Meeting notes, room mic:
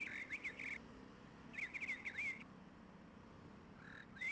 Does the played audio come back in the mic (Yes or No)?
No